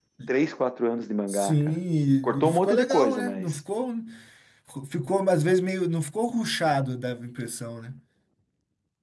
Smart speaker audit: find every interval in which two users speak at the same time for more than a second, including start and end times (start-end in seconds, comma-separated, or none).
2.2-3.6